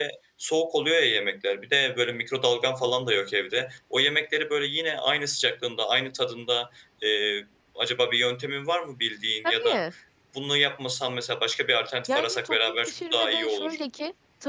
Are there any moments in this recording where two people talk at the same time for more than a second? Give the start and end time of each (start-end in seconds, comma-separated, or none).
12.1-13.8